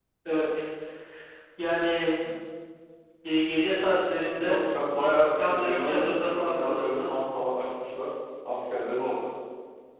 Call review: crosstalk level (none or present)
present